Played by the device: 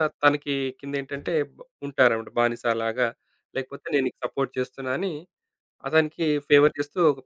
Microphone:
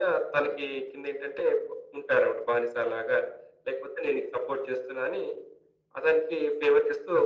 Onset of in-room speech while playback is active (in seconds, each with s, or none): none